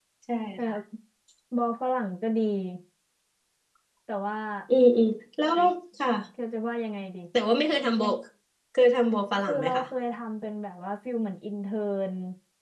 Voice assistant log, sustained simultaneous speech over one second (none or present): none